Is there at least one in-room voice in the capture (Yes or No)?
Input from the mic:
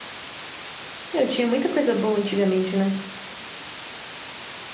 Yes